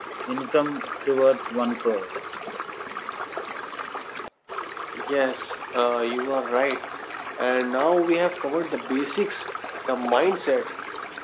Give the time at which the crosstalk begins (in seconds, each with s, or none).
none